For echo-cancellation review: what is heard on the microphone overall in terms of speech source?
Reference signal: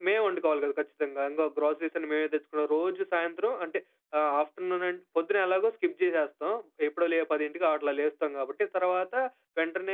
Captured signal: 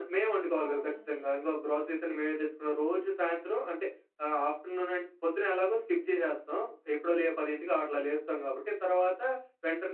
both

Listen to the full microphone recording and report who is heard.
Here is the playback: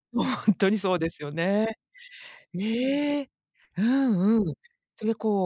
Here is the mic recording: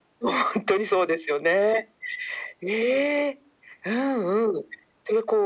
echo only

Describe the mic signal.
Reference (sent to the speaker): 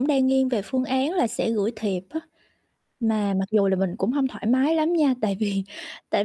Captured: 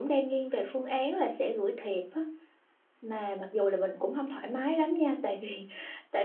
echo only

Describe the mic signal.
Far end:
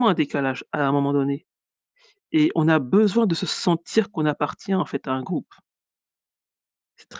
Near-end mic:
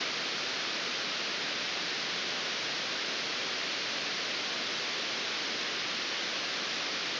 neither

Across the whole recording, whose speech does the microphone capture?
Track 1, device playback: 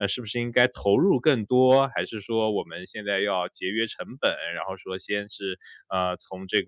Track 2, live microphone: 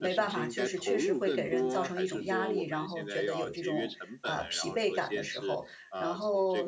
both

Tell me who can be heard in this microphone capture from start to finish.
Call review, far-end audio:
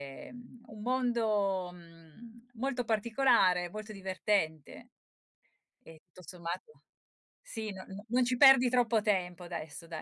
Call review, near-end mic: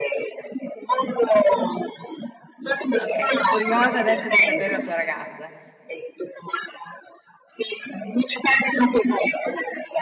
both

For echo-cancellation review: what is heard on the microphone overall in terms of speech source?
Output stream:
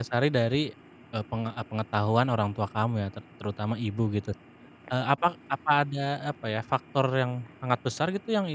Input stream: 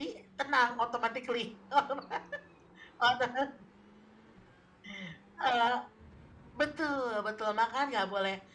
user only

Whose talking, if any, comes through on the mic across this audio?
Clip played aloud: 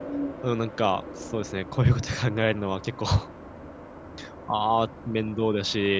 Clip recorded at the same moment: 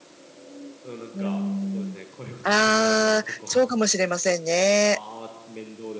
both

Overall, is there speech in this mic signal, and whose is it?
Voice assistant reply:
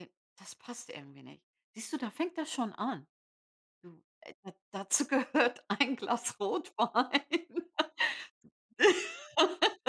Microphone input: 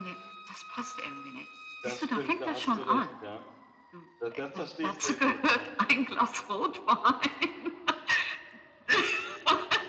both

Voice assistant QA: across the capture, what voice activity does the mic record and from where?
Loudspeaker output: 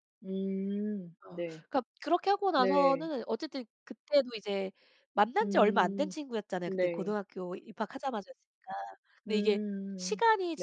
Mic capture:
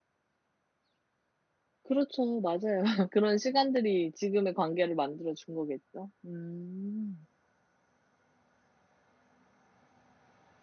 user only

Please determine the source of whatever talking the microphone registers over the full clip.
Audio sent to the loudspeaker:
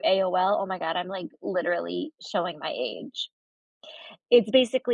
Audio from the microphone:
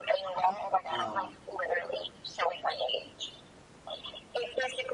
both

